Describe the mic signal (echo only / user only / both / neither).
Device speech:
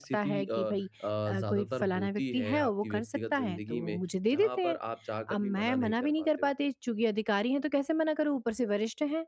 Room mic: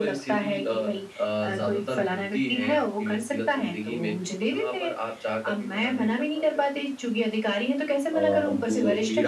both